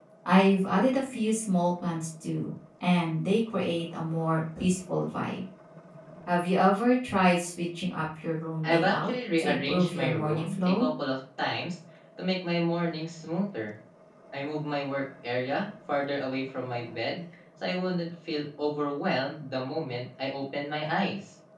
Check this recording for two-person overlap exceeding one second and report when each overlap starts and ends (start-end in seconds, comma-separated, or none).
8.6-10.9